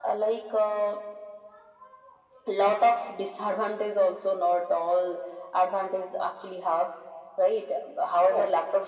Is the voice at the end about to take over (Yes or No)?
No